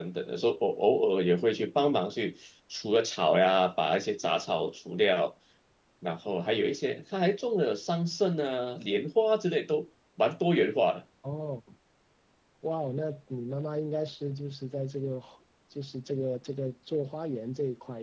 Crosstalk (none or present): none